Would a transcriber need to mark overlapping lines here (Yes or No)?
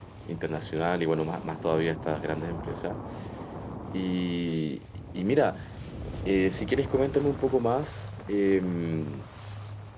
No